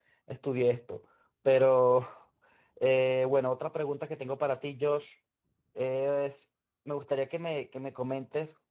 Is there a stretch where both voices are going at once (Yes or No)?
No